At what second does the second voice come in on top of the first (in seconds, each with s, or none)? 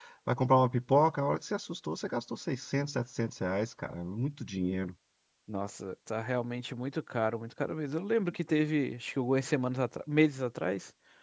none